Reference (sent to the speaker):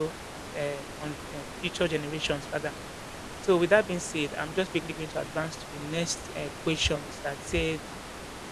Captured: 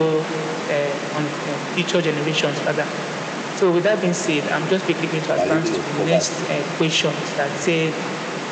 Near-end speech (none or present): present